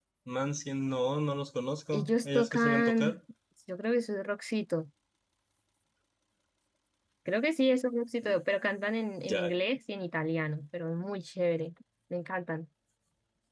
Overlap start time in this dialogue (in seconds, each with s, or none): 1.9 s